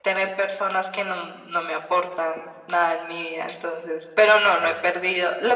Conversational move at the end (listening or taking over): listening